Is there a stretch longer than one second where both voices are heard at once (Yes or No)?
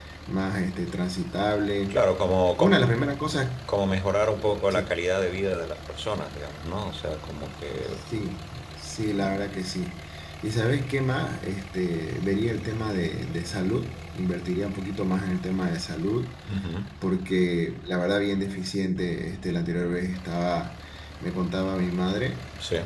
No